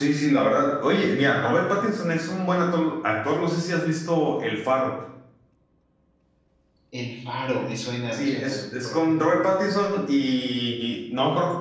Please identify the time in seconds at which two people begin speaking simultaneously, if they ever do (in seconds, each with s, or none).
8.1 s